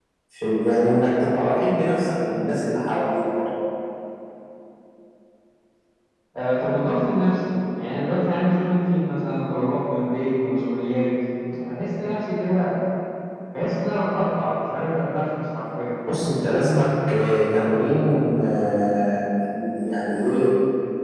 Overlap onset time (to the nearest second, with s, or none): none